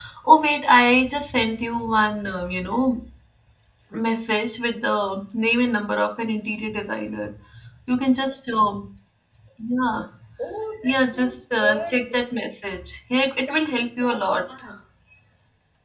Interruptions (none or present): present